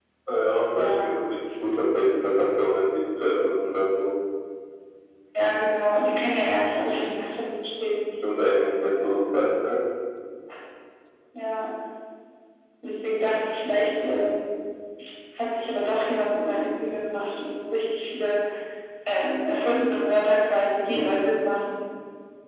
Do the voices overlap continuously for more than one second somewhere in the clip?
No

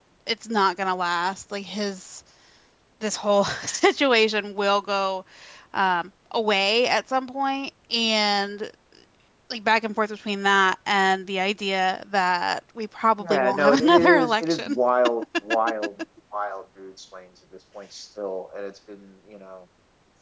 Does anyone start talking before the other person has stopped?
Yes, from 13.2 s

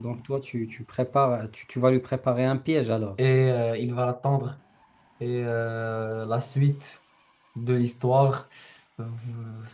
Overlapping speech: No

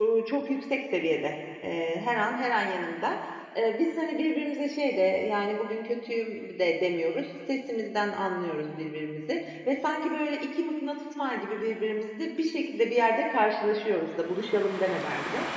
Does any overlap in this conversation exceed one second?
No

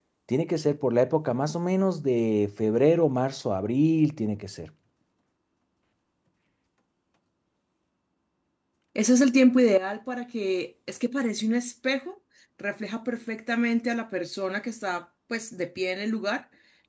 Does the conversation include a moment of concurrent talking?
No

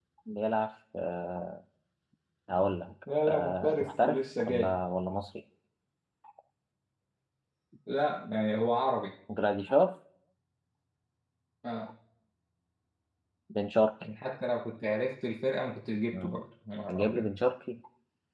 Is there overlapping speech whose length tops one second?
Yes, from 3.3 s

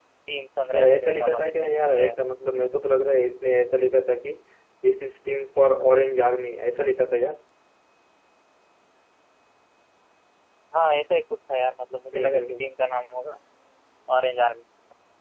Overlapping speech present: Yes, from 0.7 s

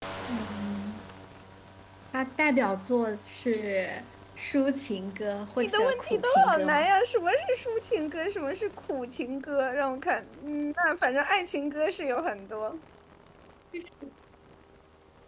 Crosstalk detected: Yes, from 5.6 s

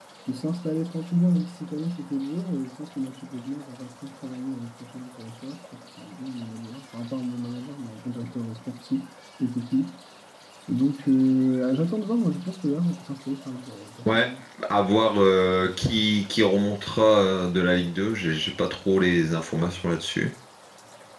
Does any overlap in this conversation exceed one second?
No

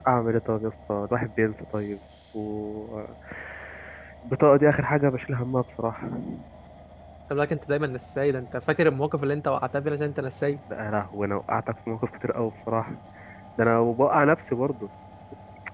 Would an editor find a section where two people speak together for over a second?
No

